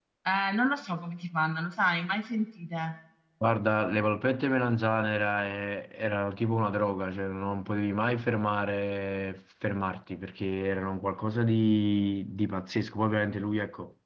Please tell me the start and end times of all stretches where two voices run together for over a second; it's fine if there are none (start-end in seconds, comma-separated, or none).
none